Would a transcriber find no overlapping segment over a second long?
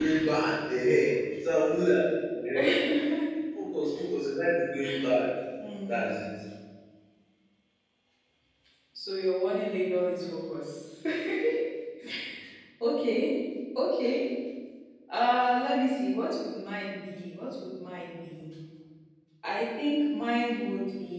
Yes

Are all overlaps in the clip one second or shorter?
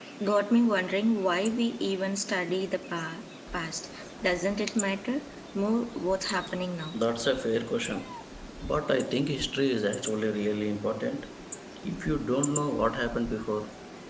Yes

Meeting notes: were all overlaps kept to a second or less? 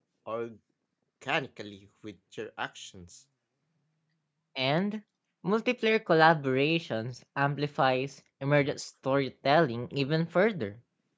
Yes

